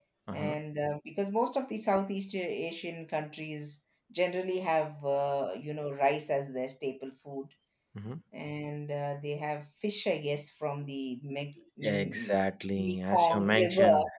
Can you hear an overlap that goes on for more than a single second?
Yes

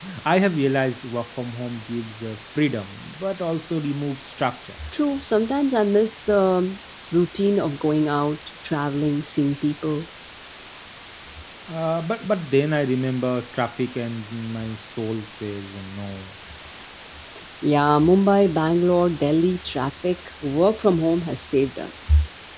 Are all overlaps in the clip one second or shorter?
Yes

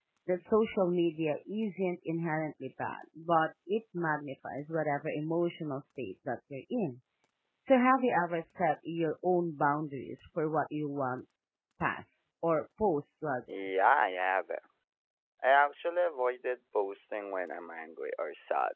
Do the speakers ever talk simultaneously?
No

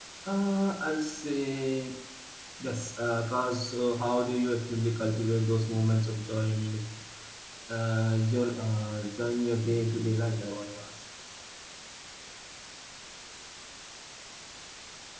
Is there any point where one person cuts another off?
No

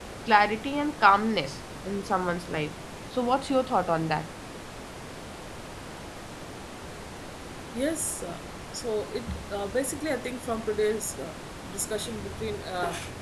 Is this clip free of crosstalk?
Yes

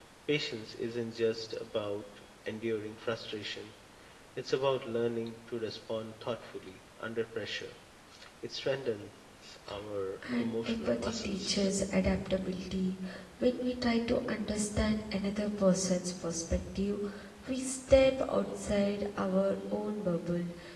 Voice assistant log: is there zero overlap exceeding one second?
No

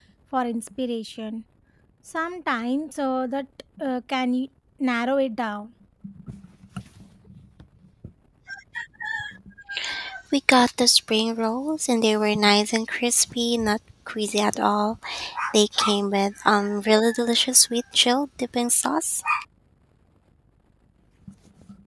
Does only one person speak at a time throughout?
Yes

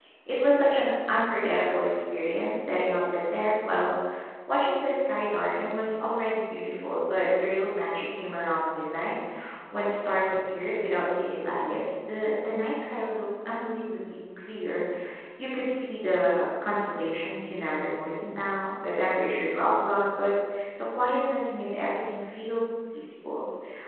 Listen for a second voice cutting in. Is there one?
No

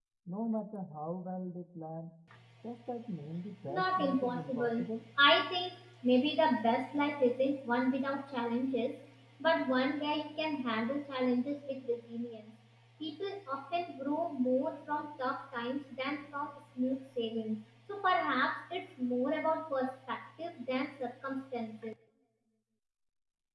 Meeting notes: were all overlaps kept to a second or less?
No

